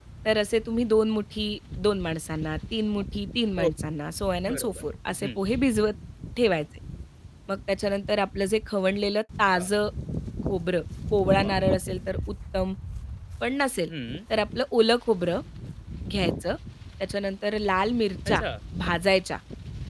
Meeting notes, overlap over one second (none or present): none